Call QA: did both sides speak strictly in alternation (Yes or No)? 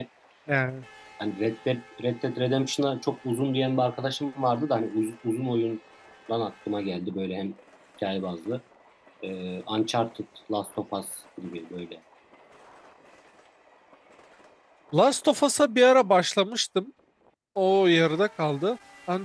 Yes